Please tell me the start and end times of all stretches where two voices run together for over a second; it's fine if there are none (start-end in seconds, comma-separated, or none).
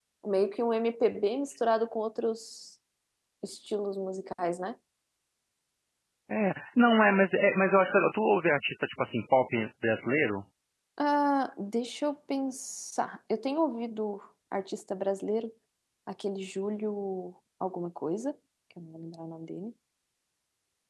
none